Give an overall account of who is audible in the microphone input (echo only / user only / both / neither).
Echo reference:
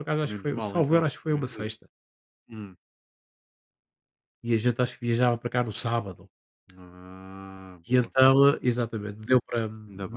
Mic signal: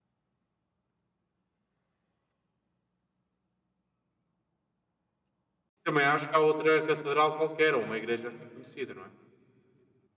user only